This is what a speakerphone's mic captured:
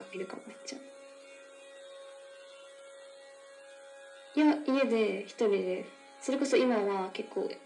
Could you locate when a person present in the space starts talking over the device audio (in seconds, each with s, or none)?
none